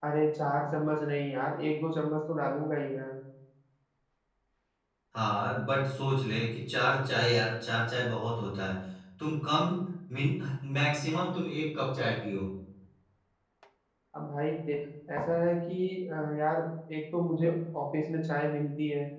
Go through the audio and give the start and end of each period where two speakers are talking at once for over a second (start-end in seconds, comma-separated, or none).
none